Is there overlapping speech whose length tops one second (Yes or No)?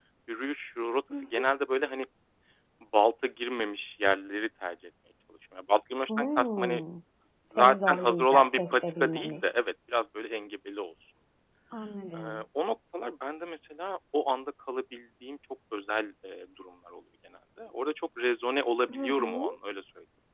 Yes